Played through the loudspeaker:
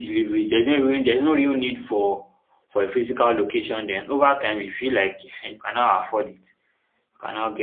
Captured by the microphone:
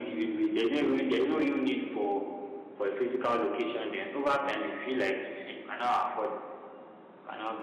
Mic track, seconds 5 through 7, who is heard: echo only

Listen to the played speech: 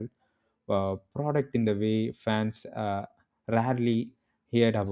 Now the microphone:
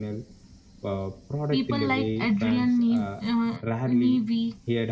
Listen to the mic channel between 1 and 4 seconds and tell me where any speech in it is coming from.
both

